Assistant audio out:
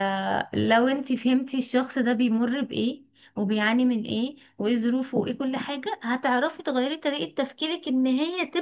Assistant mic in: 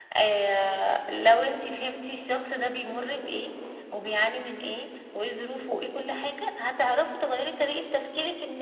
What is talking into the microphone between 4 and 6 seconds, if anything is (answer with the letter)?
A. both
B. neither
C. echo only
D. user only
C